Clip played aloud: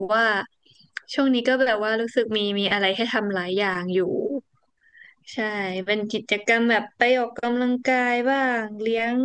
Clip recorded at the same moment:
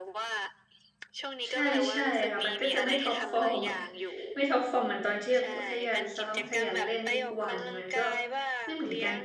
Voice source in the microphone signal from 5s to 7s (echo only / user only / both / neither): both